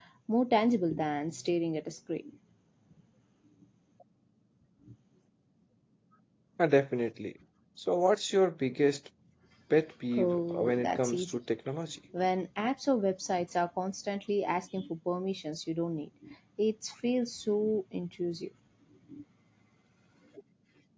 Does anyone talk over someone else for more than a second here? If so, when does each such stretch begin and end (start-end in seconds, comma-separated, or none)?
10.2-11.4